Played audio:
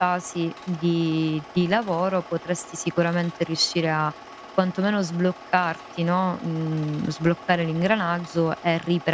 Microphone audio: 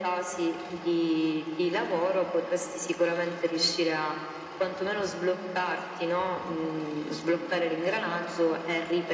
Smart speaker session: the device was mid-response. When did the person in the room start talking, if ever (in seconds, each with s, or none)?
none